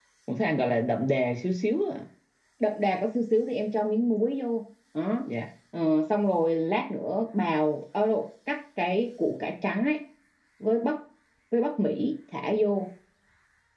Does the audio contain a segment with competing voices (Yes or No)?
No